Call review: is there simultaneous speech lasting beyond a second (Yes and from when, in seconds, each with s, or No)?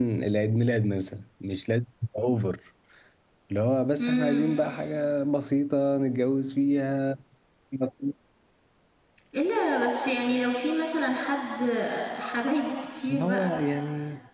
No